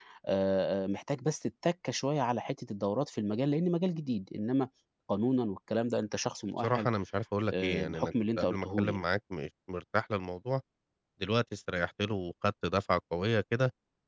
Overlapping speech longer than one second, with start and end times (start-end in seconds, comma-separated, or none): 7.5-9.0